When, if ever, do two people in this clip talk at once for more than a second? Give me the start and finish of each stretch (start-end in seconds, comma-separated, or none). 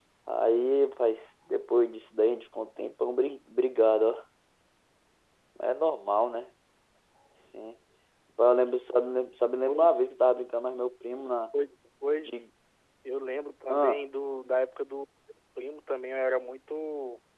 none